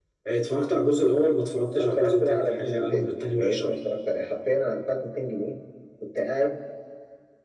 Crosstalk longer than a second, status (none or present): present